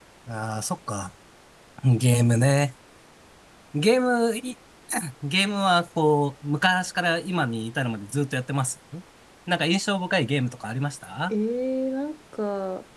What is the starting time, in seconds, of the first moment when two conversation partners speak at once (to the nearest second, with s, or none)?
none